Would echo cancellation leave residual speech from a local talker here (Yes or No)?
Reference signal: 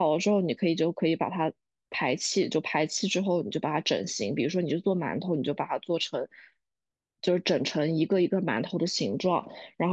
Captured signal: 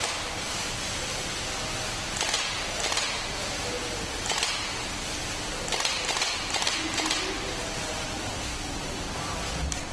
No